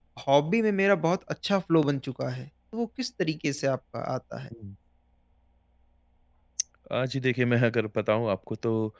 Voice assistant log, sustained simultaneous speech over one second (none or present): none